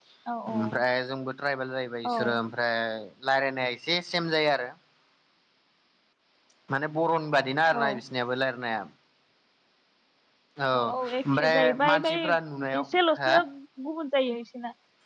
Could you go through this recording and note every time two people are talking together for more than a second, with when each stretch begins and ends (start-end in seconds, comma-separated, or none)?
10.8-12.1